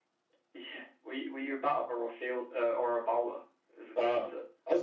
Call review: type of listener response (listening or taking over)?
taking over